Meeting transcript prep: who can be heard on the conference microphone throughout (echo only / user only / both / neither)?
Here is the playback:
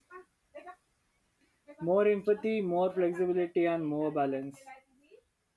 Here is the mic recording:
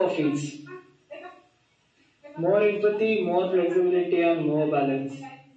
echo only